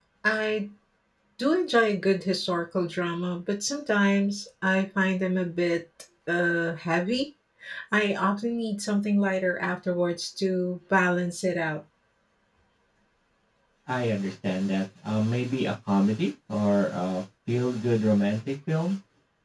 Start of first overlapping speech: none

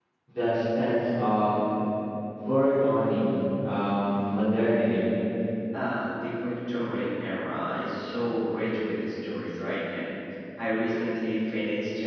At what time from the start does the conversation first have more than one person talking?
none

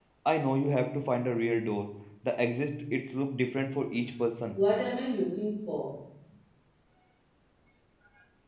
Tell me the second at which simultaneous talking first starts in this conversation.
none

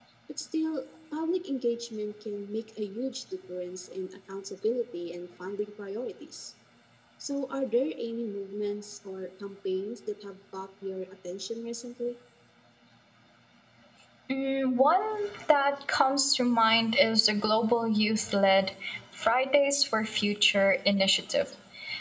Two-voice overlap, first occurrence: none

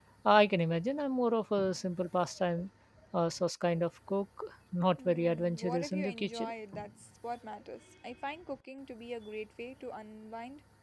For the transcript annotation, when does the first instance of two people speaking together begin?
5 s

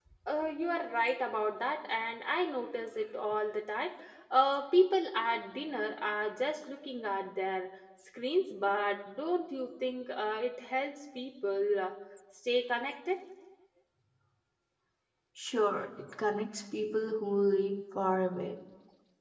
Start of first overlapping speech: none

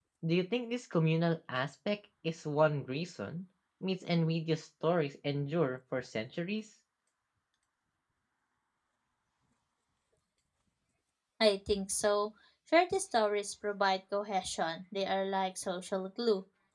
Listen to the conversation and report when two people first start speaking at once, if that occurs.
none

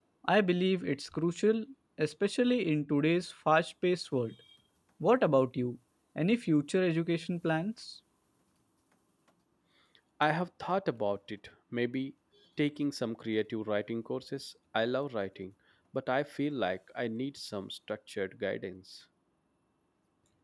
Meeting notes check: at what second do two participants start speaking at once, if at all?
none

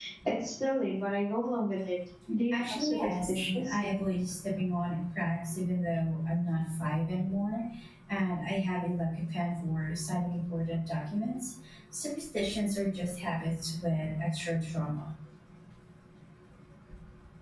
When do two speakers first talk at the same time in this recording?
3 s

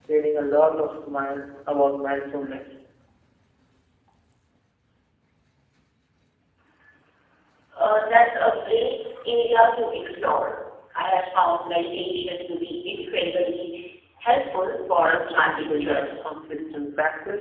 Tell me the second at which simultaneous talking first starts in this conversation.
15 s

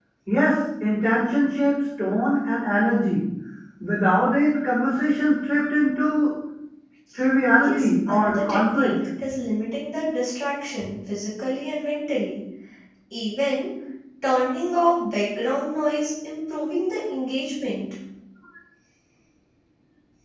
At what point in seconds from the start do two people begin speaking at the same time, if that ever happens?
8 s

